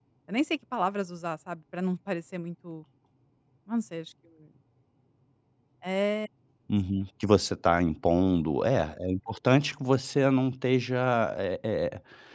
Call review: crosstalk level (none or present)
none